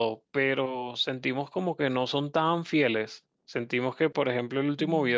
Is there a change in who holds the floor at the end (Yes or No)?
No